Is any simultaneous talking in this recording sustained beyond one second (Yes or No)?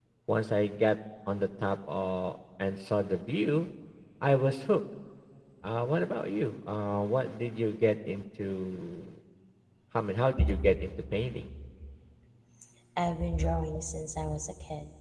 No